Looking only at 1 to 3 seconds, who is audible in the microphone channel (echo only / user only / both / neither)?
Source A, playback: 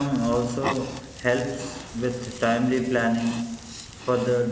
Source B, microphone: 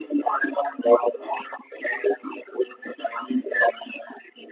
echo only